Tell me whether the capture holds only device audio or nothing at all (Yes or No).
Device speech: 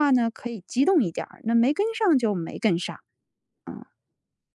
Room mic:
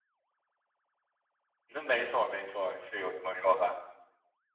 No